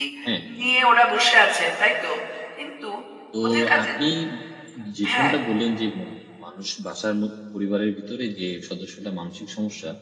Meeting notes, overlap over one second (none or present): none